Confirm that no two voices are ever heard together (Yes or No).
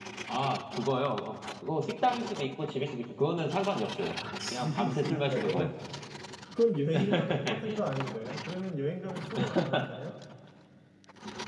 No